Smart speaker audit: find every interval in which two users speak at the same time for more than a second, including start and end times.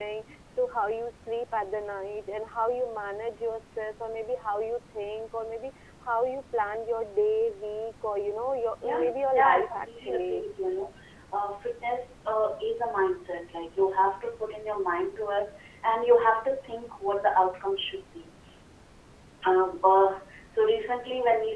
8.8-10.4

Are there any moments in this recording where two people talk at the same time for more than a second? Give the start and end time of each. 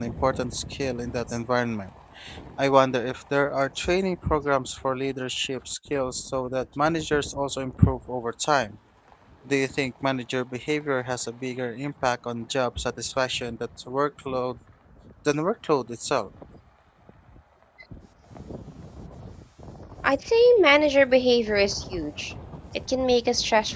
none

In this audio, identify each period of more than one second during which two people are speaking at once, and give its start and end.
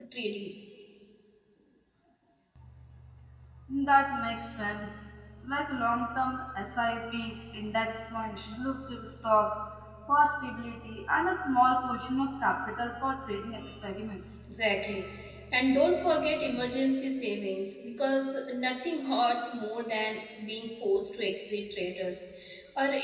none

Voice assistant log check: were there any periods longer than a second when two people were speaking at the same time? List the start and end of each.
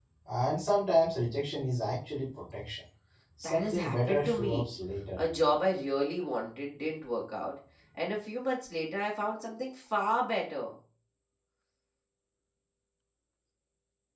3.4-4.7

